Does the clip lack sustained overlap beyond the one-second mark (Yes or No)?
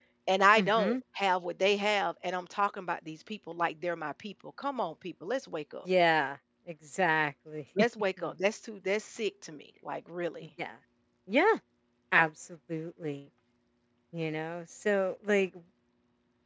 Yes